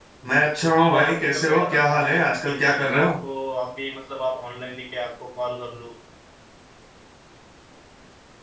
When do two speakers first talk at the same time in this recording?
1 s

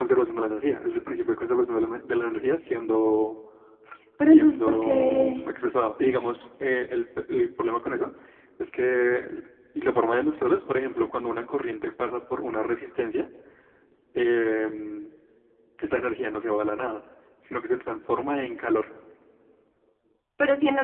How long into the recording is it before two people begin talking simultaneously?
4 s

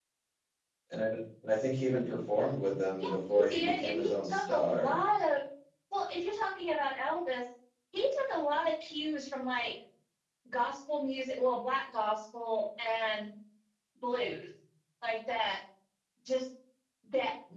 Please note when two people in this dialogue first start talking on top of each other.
3 s

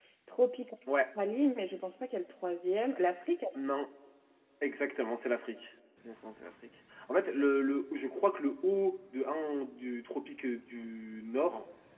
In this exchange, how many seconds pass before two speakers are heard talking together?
none

